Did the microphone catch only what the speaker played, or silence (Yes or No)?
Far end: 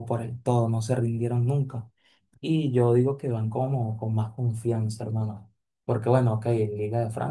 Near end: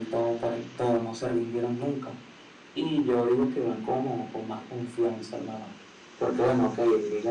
Yes